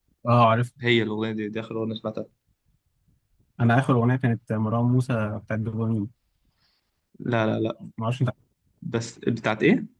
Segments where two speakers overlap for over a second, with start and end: none

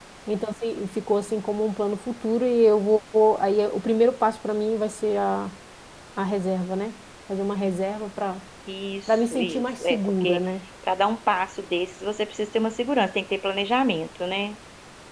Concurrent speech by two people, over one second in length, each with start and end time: 9.1-10.4

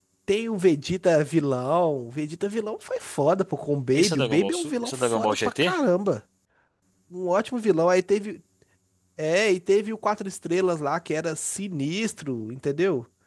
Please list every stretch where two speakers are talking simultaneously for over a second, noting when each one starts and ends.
3.9-5.7

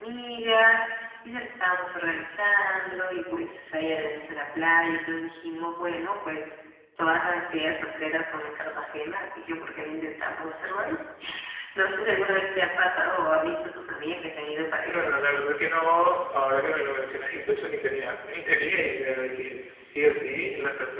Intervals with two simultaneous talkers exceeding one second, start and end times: none

